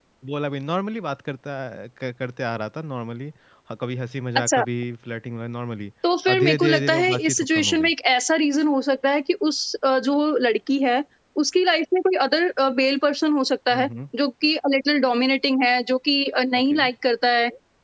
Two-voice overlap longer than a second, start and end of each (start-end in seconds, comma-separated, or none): 6.3-7.9